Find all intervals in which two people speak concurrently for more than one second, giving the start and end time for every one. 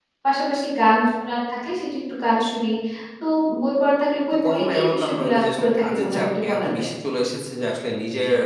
4.3-6.9

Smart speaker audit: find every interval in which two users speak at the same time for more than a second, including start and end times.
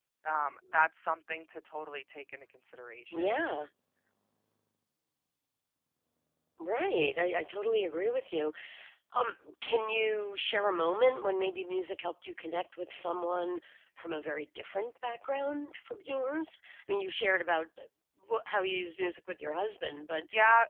none

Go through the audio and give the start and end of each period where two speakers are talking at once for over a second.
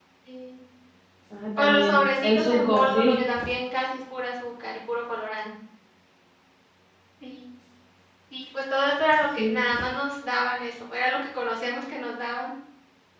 1.6-3.2

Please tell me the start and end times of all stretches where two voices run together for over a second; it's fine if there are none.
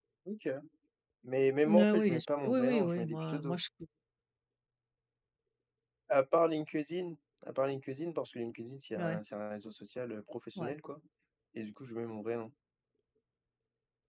1.7-3.6

